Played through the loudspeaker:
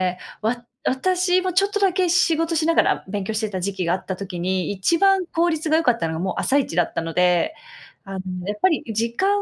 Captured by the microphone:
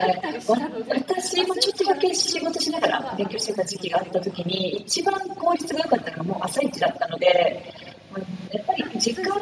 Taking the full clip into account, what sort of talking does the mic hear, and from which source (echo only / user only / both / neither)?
both